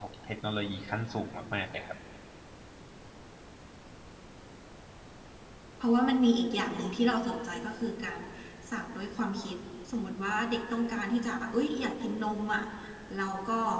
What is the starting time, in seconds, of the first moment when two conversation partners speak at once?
none

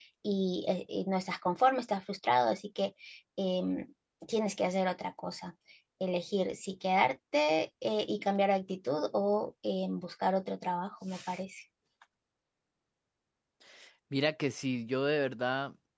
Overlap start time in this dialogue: none

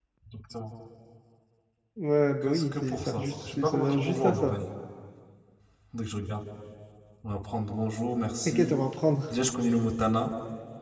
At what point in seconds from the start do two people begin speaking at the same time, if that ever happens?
2.5 s

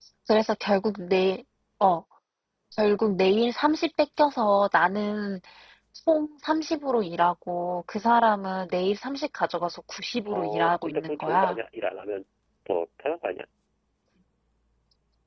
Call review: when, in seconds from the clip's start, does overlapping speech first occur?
10.3 s

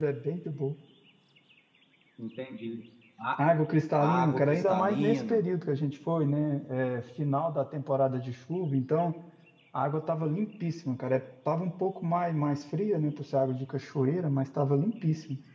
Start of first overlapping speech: 4.0 s

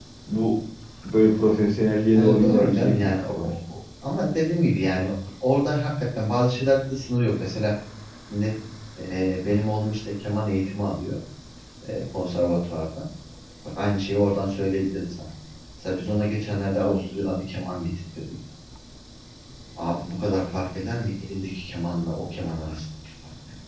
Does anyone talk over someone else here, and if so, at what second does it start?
2.1 s

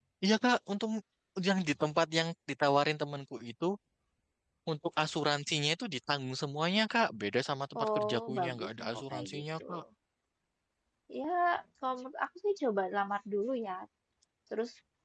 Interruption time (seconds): 7.8 s

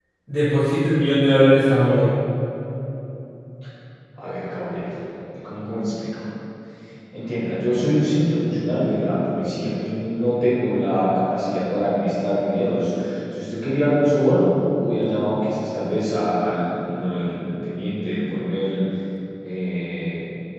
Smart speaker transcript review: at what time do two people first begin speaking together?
none

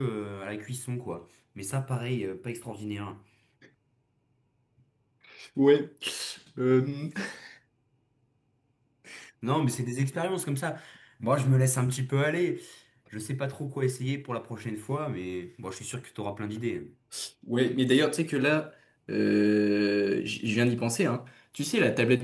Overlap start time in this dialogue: none

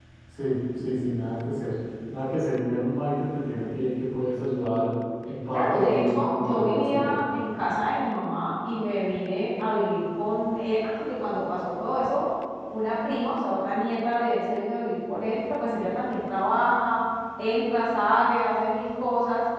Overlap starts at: 5.5 s

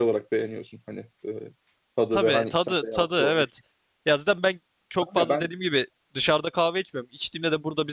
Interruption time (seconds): 2.1 s

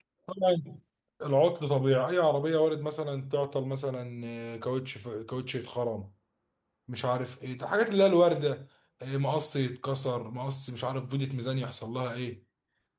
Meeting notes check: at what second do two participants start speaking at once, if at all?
none

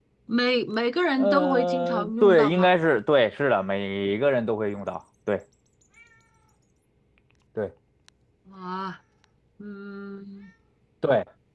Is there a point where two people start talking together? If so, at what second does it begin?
1.2 s

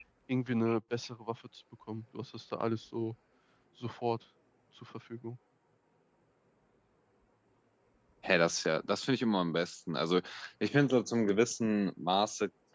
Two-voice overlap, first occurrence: none

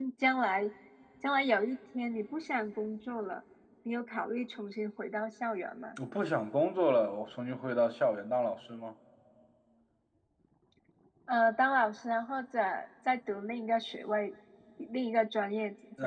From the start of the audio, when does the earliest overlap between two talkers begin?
none

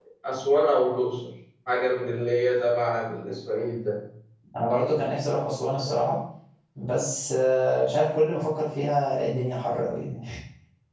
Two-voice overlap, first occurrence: none

